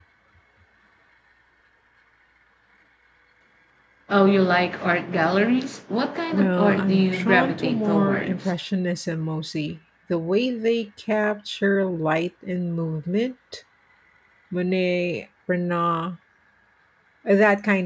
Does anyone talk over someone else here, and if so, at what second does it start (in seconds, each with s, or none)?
6.3 s